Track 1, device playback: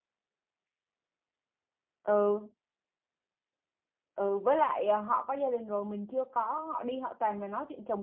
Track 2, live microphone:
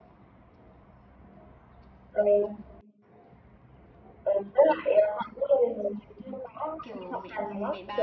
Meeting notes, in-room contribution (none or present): present